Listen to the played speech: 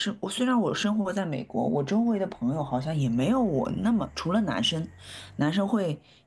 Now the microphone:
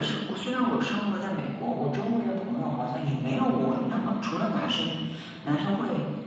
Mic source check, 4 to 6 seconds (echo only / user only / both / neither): echo only